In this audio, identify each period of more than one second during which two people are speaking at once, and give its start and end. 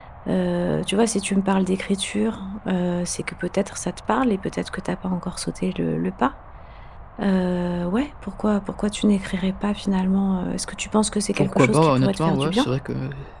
11.3-12.7

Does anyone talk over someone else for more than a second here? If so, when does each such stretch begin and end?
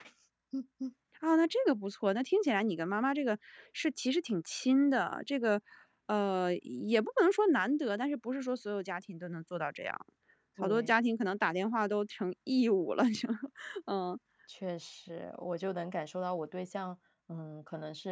none

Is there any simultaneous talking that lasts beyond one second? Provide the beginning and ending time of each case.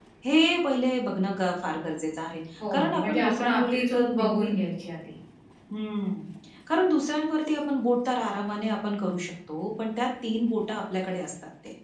2.7-4.5

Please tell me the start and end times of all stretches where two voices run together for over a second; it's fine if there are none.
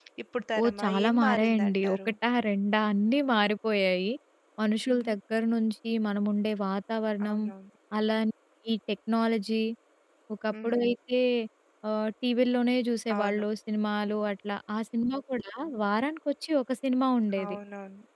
0.6-2.1

